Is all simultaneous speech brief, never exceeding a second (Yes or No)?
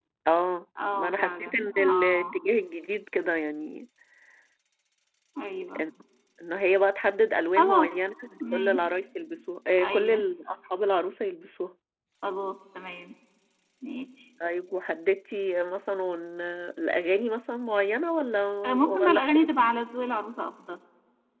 No